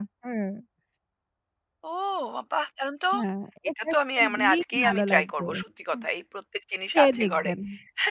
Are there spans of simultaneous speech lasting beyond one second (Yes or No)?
Yes